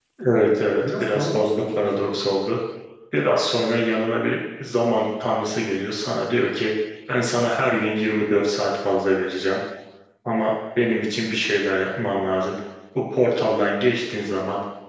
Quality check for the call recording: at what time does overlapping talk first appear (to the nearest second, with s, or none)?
1 s